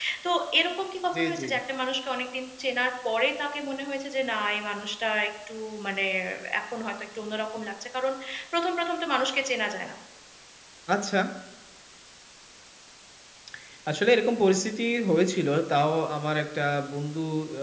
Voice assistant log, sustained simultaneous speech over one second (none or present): none